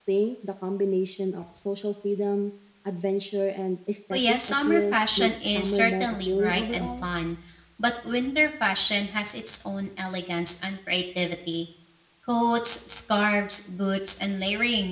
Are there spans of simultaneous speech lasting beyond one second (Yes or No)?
Yes